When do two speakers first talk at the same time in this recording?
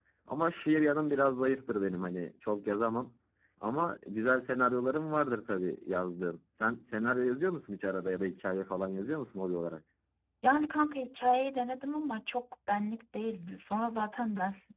none

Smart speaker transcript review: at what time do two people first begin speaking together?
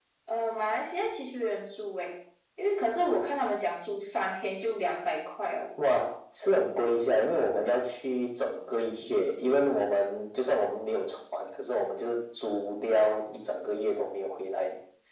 none

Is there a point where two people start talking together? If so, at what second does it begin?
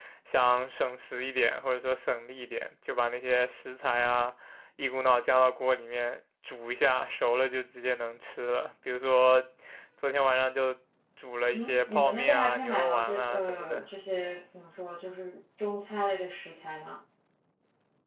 11.5 s

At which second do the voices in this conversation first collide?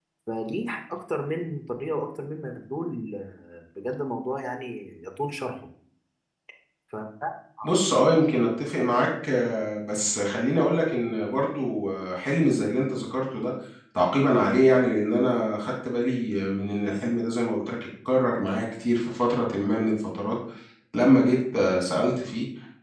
none

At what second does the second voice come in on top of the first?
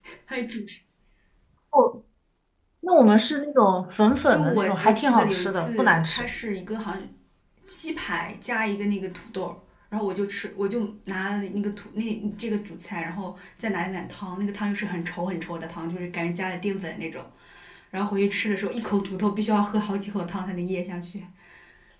4.1 s

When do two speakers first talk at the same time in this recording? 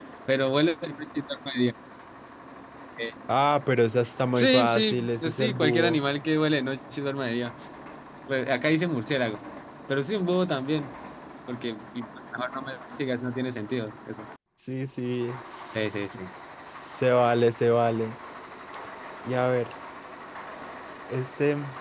4.4 s

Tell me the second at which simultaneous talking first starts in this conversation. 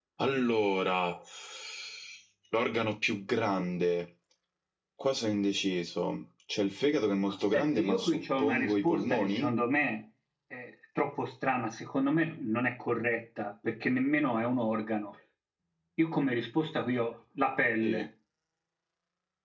7.3 s

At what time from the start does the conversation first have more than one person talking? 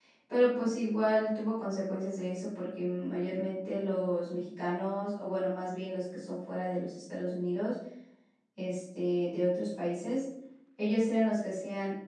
none

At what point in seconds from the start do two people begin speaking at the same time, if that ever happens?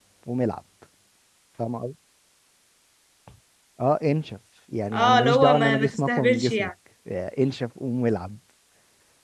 4.9 s

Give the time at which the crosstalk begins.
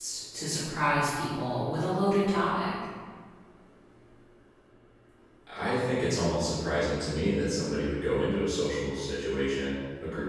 none

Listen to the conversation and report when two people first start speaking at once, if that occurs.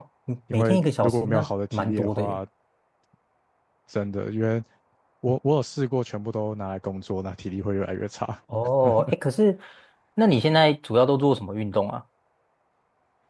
0.5 s

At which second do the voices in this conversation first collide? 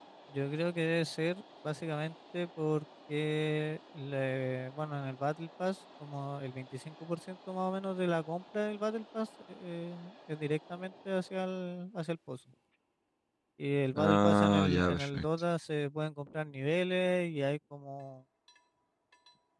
13.9 s

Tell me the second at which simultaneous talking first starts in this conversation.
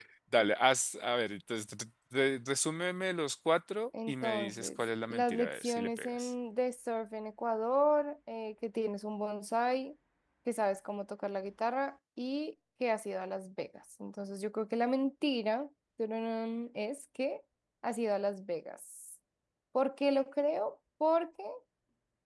3.9 s

